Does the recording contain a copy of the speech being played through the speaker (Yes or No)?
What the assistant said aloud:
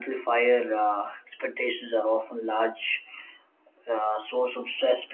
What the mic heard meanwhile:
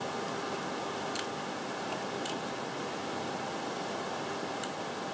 No